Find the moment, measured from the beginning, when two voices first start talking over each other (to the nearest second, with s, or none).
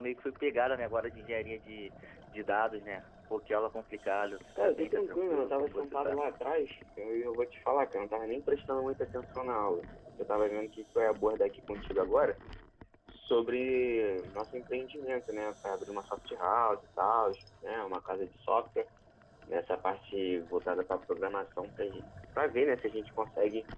5 s